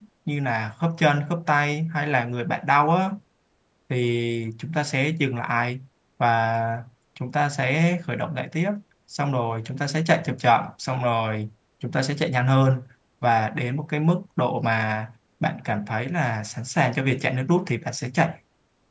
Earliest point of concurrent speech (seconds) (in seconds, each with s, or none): none